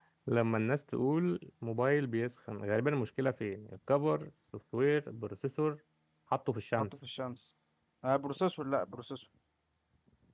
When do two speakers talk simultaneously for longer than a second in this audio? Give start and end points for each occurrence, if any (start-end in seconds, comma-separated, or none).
none